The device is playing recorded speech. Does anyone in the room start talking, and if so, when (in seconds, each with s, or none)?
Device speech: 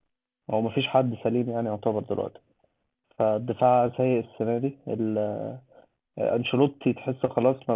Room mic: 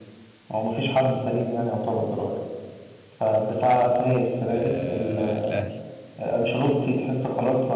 4.5 s